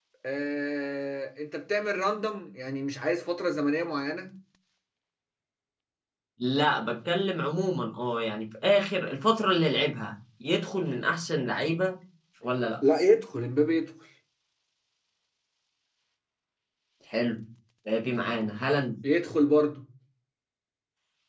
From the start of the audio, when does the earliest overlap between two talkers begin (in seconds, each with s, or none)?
none